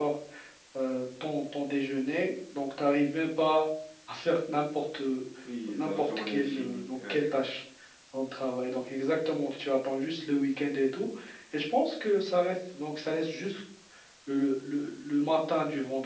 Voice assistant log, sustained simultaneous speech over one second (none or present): present